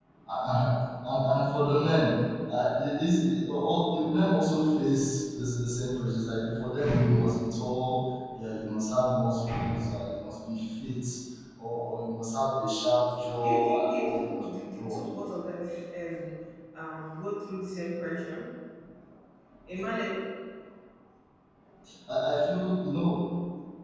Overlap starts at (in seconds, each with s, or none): 13.4 s